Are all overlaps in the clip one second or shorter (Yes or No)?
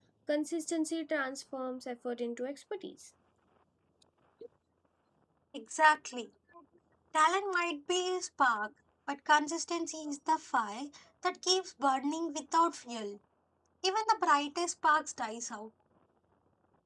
Yes